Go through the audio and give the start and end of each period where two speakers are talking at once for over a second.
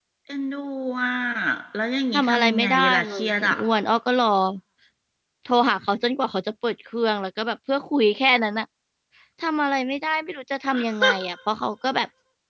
2.1-3.6

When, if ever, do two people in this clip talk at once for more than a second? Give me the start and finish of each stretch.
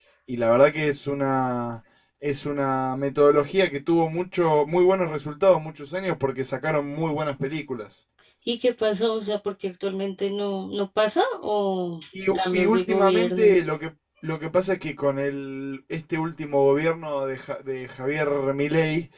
12.3-13.6

